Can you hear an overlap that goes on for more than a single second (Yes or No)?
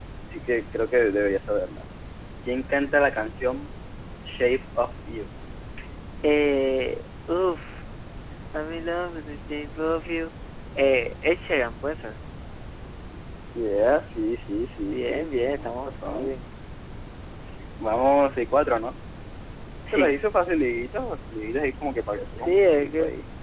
Yes